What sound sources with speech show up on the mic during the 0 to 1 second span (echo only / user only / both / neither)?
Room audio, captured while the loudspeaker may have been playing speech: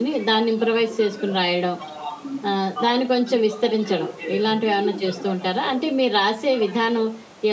both